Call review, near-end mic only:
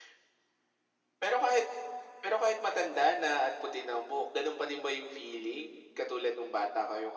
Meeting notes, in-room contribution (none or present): none